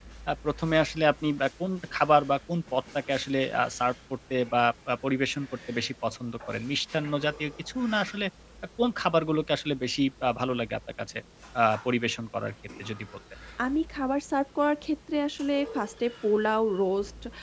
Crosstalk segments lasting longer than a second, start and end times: none

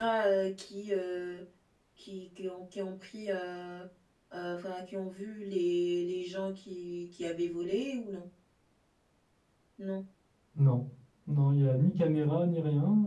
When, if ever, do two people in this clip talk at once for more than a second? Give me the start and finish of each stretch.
none

